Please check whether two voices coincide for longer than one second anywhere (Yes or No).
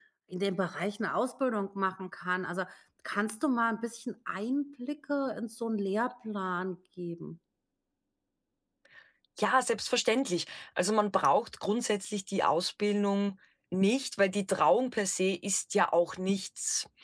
No